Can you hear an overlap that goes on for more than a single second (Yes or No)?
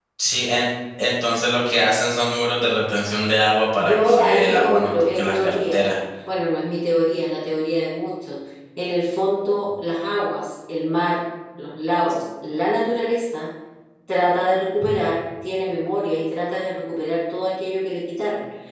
Yes